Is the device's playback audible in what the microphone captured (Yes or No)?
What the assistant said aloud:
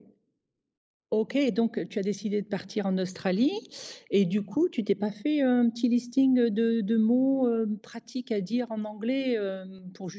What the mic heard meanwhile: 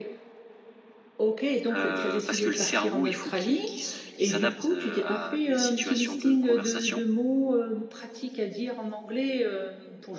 Yes